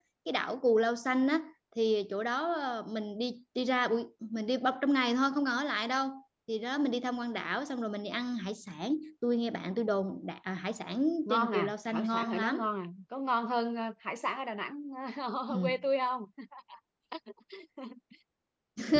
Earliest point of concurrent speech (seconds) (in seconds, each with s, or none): 11.2 s